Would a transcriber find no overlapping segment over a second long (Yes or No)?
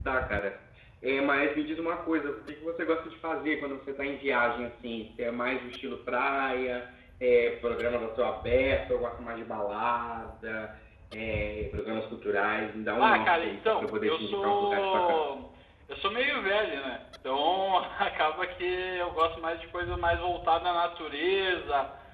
No